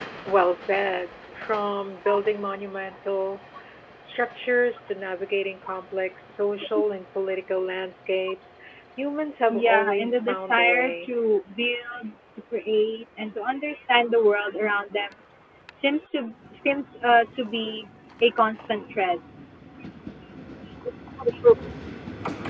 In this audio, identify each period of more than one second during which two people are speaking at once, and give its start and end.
9.5-11.1

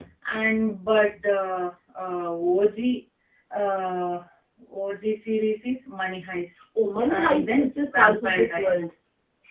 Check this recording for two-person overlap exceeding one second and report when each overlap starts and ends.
7.2-8.8

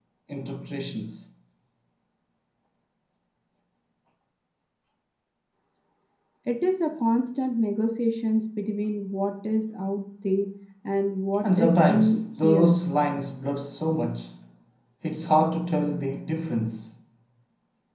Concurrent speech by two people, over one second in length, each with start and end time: 11.4-12.7

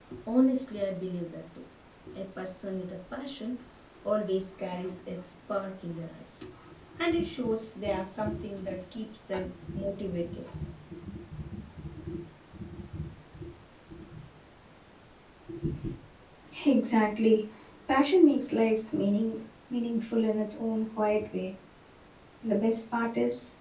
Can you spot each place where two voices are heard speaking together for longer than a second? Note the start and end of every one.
none

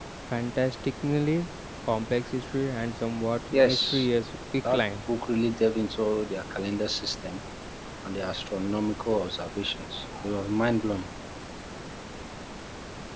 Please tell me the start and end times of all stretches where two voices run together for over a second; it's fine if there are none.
none

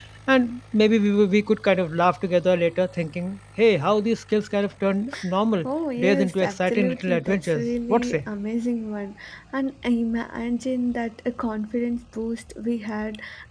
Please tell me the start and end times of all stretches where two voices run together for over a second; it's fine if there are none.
6.0-8.2

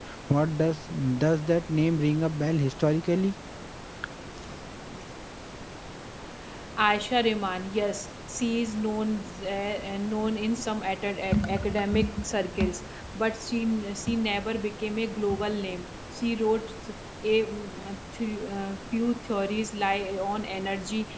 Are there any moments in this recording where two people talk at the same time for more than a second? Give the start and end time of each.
none

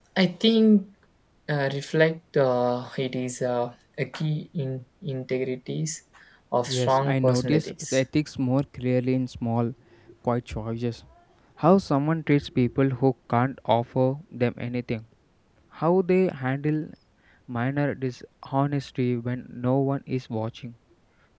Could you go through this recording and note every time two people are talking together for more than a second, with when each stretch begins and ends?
6.7-7.9

